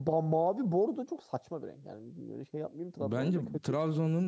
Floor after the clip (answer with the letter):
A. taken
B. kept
A